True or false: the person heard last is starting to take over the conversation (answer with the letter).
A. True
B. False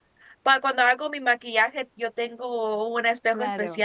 B